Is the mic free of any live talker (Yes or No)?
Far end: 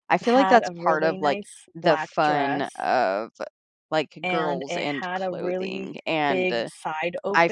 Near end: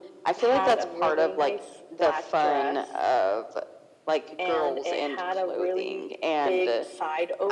Yes